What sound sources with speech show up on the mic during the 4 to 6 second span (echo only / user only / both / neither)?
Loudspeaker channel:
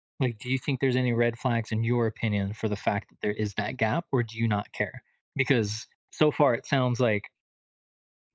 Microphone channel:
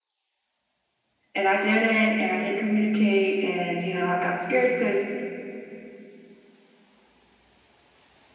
user only